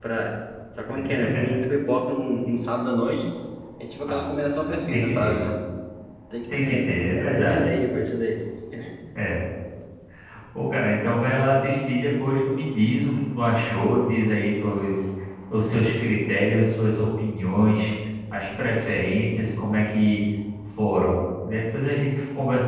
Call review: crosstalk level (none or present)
present